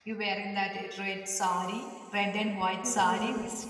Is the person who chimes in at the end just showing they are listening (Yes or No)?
No